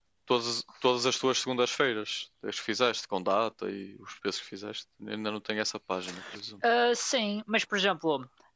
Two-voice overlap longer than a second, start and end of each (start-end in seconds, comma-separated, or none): none